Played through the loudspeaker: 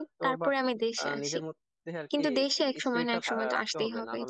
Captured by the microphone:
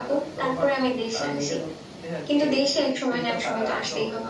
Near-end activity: none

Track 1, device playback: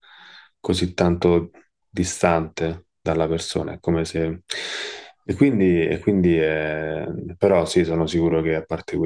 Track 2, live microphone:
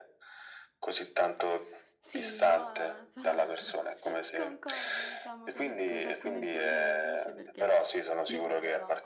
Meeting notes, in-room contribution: present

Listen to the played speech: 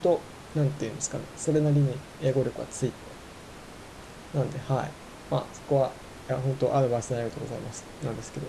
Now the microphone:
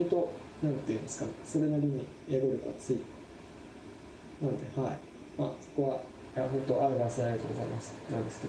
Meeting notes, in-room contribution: none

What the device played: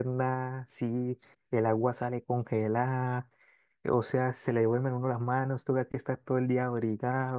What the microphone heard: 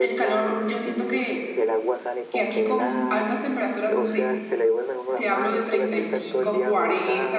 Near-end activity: present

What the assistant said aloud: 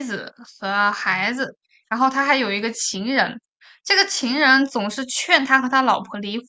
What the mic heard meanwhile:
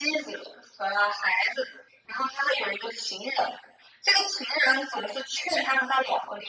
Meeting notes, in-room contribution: none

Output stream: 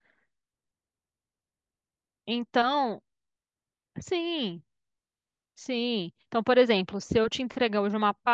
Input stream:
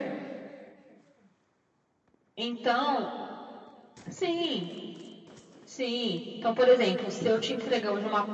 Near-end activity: none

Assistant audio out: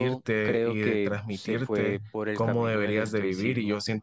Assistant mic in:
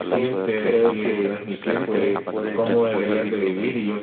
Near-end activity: present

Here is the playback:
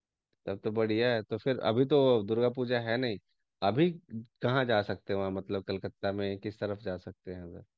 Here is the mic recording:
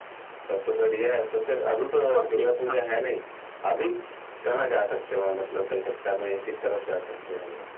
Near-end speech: present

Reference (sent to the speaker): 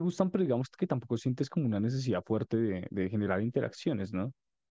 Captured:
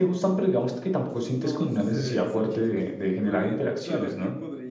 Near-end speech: present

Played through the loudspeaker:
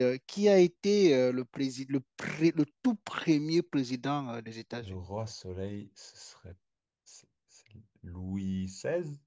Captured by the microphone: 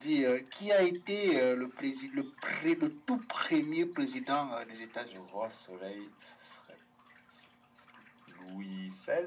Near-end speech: none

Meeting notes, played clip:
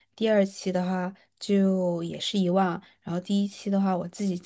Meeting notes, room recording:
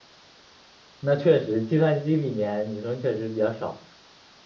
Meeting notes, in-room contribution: present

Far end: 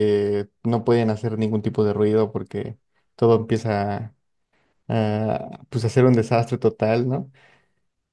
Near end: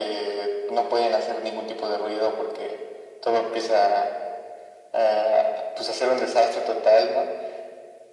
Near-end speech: none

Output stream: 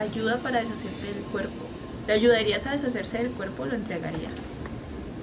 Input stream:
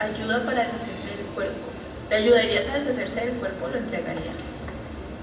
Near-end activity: none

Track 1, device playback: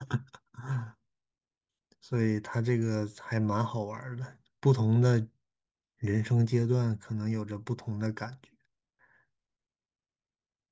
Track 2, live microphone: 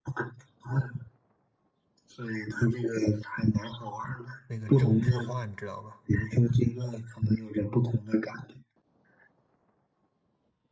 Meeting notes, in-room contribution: present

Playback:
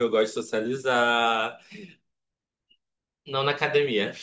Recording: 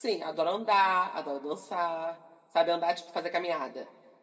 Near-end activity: present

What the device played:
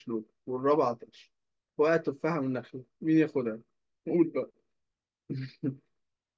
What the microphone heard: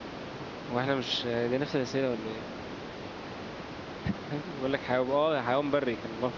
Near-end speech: present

